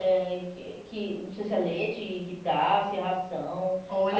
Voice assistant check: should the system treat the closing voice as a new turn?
Yes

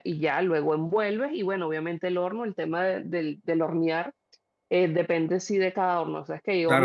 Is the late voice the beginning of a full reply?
Yes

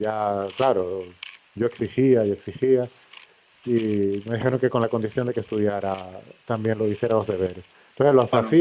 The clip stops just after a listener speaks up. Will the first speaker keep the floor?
Yes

